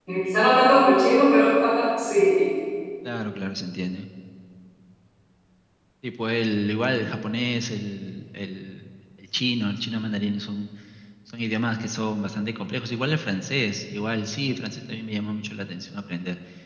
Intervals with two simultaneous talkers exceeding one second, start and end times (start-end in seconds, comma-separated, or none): none